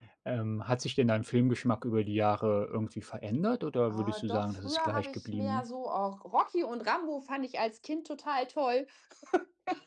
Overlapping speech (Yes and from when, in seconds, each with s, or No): Yes, from 3.9 s